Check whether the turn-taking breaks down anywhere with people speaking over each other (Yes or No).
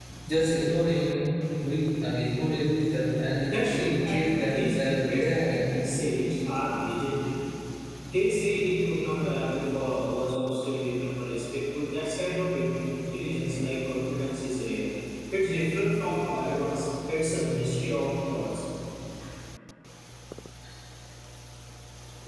Yes